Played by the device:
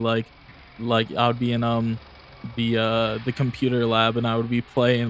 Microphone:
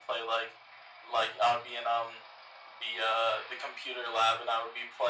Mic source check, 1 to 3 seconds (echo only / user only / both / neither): echo only